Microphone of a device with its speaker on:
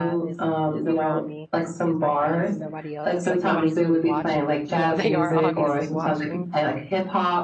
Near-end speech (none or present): present